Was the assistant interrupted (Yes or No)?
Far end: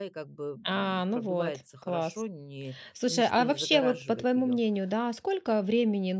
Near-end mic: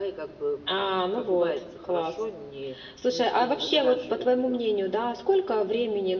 No